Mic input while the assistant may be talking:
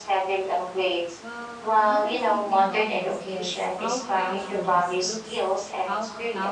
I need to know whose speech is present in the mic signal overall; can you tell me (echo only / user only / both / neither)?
both